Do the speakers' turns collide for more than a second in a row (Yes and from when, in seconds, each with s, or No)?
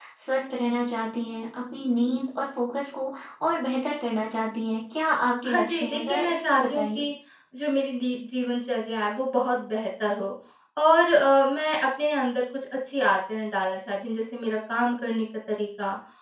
Yes, from 5.4 s